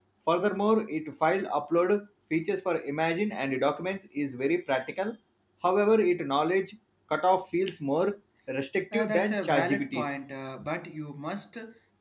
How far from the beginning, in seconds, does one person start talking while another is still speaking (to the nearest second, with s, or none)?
9 s